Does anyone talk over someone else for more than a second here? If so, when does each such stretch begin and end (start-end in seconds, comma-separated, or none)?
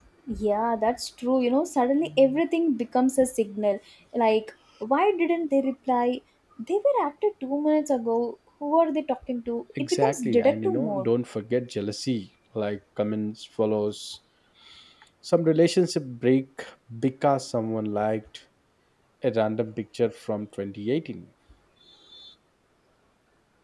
9.8-11.1